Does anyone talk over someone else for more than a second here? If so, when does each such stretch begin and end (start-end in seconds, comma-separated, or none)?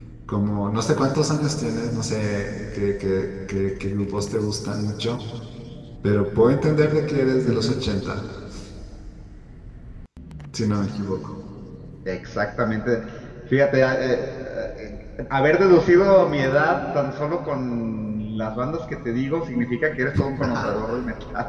none